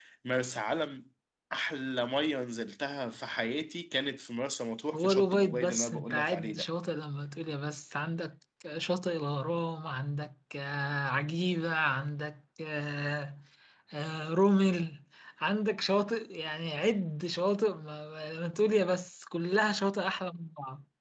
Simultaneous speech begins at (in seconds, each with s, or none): 4.9 s